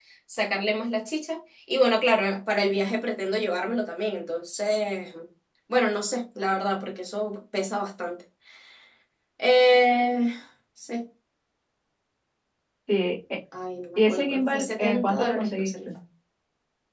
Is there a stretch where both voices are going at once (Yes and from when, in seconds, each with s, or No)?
Yes, from 13.9 s